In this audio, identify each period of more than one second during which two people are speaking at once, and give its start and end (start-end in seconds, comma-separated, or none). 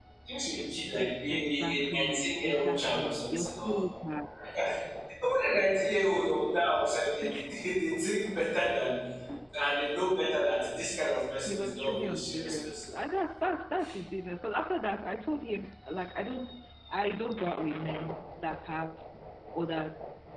1.0-3.8, 11.4-12.9